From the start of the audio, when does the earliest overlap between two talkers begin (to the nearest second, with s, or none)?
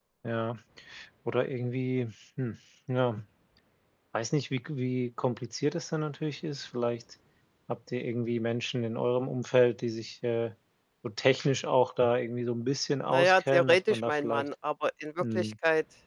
13 s